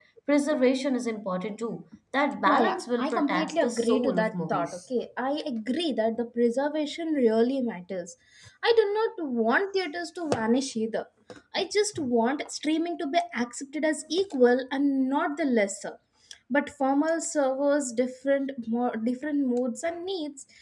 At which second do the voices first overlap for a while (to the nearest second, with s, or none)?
2 s